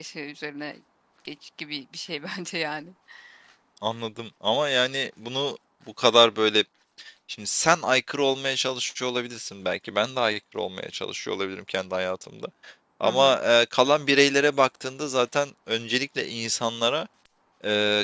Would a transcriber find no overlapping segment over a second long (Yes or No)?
Yes